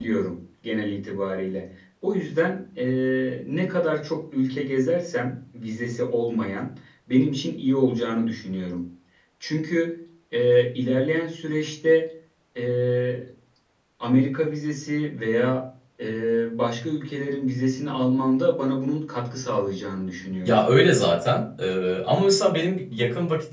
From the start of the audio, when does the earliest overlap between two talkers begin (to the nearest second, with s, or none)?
none